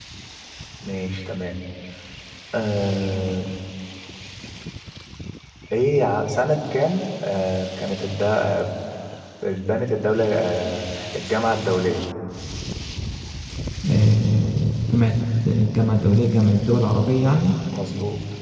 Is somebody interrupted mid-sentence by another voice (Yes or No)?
No